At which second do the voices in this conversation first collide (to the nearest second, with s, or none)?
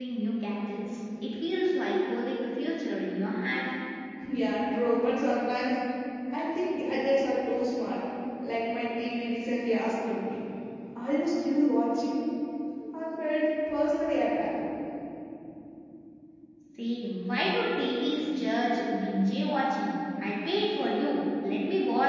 none